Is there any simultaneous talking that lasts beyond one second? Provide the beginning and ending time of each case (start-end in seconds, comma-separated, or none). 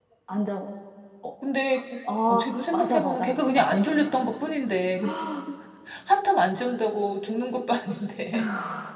2.1-4.2